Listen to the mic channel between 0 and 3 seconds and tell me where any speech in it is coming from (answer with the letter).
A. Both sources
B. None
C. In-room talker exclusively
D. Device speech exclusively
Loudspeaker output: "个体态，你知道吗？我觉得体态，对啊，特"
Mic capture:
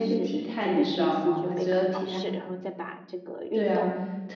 A